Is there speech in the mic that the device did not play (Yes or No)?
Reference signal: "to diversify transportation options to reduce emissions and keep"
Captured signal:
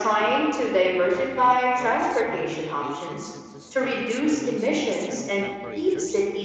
Yes